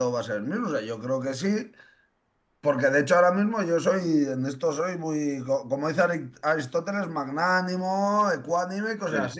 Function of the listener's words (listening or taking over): listening